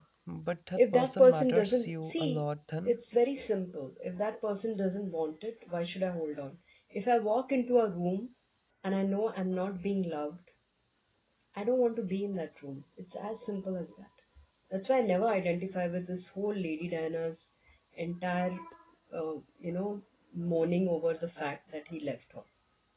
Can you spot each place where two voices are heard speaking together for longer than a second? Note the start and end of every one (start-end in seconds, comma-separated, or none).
0.8-2.4